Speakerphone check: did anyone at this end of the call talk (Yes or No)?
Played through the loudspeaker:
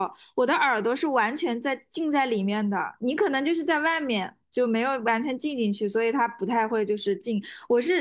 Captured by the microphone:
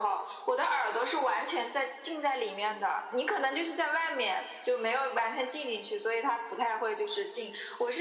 No